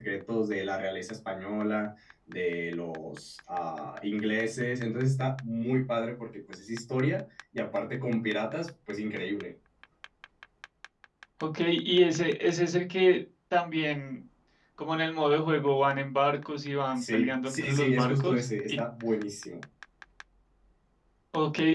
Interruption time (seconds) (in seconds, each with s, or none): 17.0 s